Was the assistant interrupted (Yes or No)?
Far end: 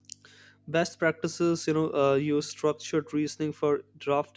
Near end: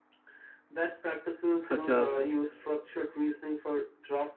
Yes